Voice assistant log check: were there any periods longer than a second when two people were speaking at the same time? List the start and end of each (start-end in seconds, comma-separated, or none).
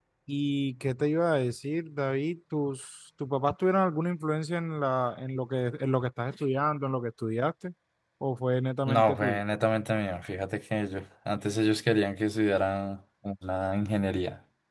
none